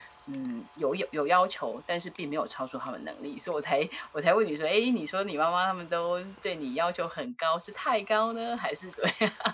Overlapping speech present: No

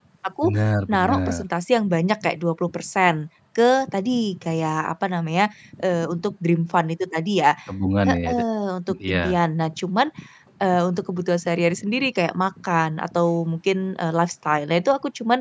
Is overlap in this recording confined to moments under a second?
Yes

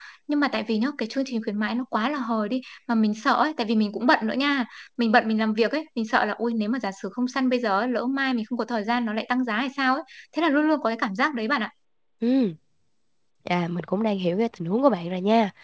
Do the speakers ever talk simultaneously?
No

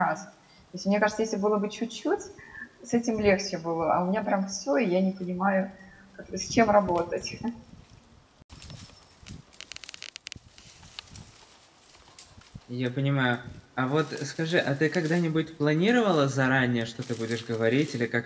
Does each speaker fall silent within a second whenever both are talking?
Yes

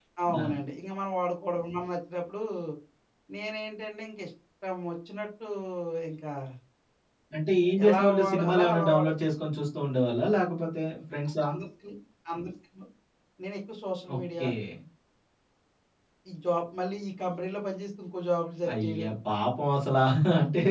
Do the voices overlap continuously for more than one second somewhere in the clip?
Yes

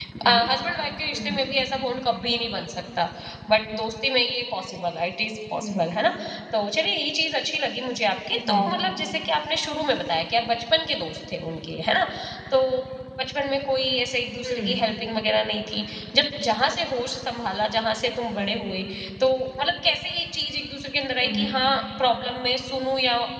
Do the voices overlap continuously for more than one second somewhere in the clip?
No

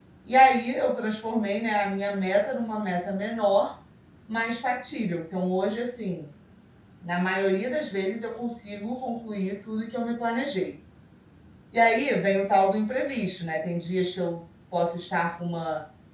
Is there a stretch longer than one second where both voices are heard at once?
No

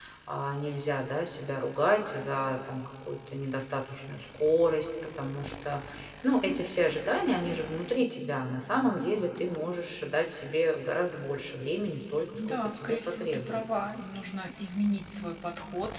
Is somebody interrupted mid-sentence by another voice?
Yes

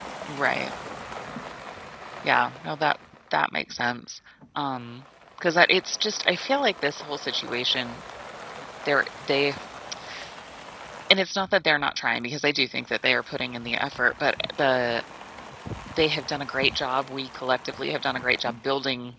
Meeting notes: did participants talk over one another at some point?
No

